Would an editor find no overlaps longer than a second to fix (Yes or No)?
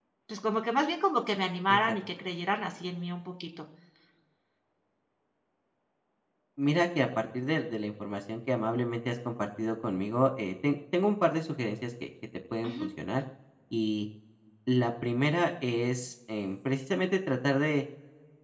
Yes